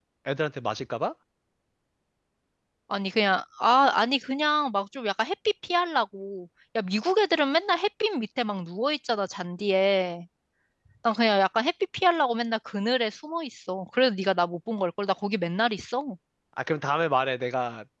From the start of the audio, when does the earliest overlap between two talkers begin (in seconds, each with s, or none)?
none